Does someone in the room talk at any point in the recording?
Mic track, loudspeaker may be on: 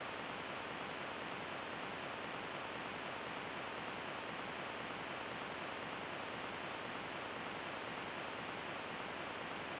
No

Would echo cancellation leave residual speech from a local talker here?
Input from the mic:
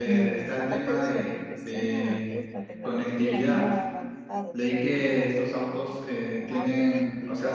Yes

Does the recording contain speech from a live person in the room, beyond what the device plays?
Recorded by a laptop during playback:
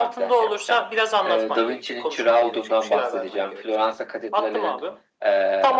No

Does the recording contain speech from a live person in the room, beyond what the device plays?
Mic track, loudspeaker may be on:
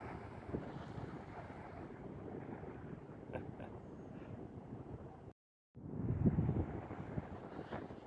No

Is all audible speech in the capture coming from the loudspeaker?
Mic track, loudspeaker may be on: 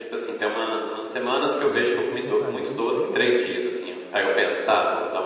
No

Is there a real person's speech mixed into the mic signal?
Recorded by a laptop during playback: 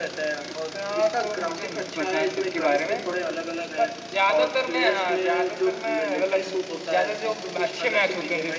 No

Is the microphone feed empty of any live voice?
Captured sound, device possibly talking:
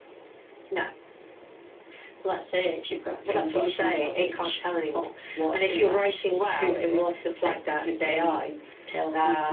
Yes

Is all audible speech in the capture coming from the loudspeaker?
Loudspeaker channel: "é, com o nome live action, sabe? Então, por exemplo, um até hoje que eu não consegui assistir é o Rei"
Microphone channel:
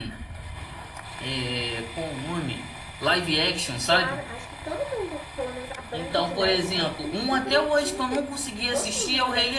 No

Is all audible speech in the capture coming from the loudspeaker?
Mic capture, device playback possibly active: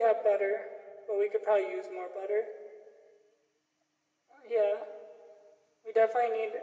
Yes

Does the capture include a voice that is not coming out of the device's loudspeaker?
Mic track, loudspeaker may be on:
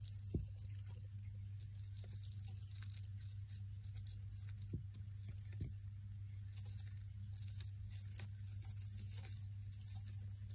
No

